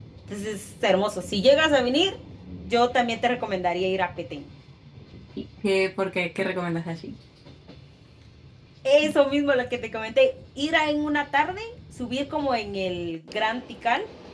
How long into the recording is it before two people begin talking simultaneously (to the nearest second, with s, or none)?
none